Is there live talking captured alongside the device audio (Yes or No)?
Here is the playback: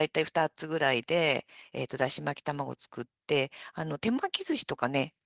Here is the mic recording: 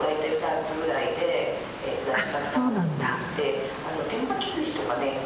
Yes